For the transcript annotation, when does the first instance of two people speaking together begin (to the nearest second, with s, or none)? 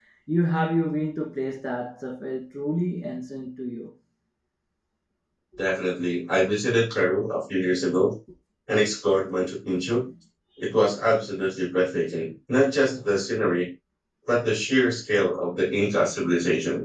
none